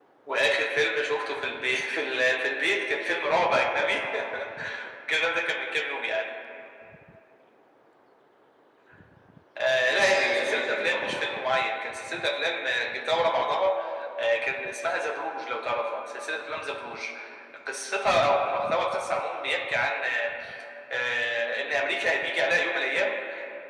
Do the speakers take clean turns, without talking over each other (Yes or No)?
No